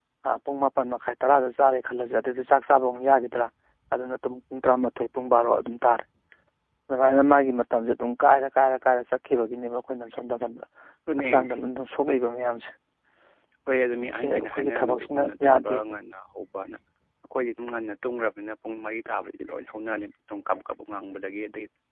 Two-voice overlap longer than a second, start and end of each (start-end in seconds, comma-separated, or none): 14.2-15.8